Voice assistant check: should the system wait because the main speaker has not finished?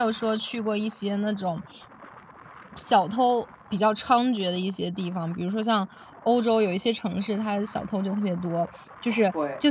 Yes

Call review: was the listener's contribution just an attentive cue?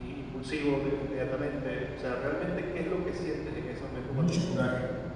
No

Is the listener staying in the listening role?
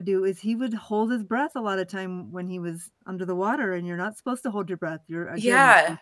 No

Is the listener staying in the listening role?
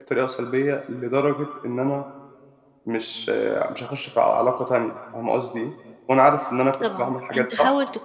No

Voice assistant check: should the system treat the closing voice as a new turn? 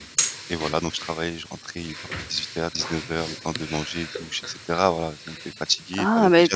Yes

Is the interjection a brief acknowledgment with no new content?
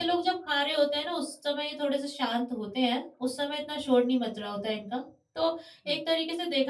Yes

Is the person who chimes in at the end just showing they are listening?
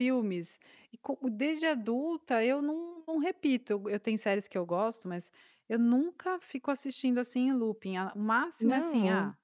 Yes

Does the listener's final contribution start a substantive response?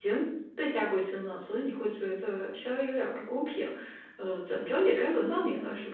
Yes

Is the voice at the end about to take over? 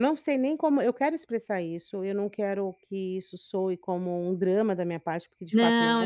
Yes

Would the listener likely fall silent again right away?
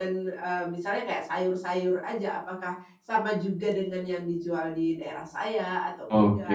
No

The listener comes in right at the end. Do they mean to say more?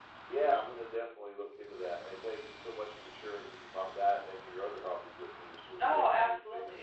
Yes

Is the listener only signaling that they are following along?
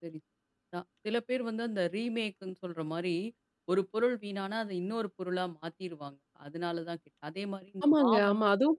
No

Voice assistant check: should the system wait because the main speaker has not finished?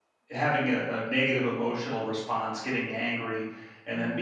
Yes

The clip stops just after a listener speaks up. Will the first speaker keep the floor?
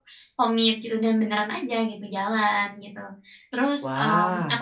Yes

